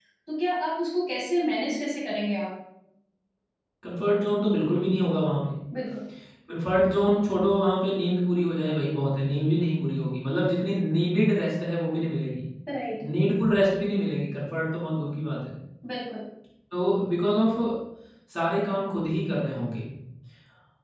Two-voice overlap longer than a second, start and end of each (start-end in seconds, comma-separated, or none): none